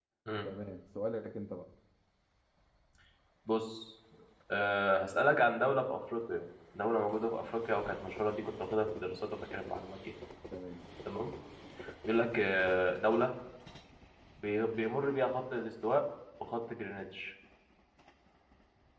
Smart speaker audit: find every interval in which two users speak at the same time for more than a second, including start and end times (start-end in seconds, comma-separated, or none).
none